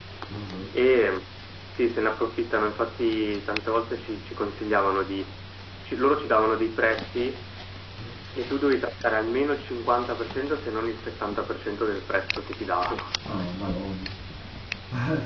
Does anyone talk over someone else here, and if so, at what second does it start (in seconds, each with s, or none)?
none